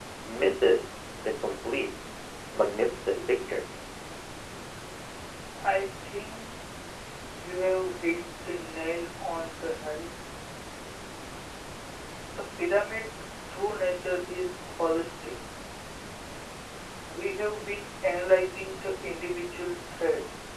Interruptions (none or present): none